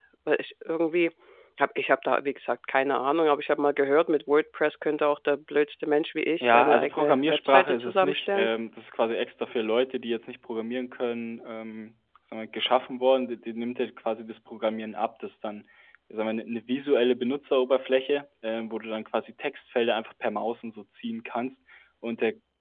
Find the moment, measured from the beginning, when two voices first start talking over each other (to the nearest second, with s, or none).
6 s